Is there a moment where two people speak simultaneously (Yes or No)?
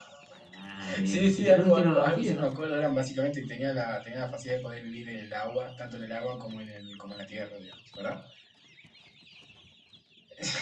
Yes